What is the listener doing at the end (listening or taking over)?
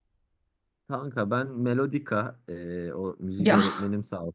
listening